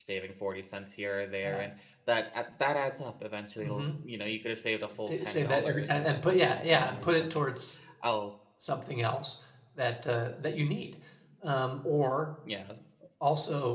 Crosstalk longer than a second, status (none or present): present